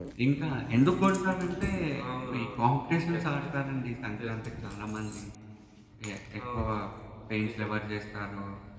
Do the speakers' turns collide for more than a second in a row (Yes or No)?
No